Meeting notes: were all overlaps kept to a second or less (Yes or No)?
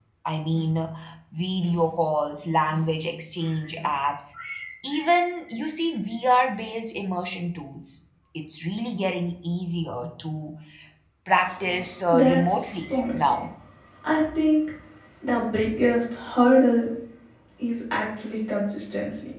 No